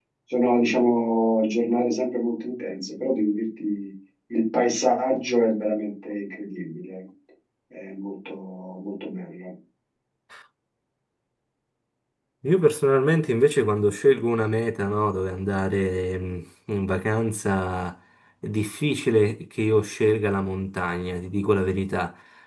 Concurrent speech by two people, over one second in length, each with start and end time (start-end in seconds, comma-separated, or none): none